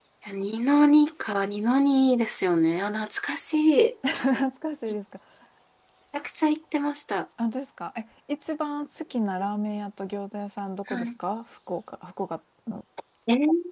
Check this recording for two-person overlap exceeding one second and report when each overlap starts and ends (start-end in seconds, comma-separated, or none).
none